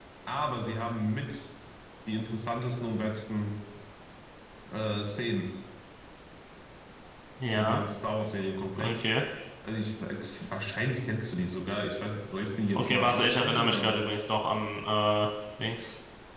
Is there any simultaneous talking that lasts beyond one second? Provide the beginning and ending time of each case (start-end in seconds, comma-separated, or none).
12.7-14.0